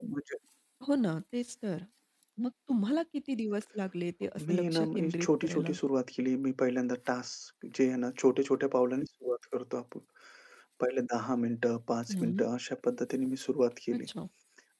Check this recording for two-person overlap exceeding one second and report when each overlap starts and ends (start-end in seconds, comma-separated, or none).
4.5-5.8